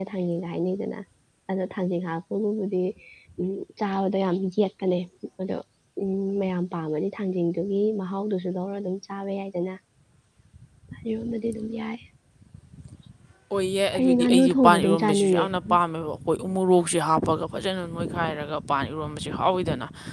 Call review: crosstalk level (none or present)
present